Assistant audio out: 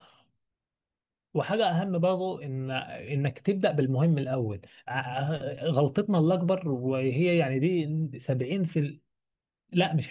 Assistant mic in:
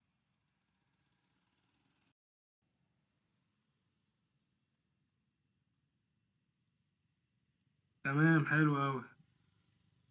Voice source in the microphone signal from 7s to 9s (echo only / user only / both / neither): user only